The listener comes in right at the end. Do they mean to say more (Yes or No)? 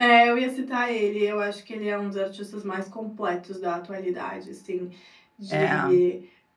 No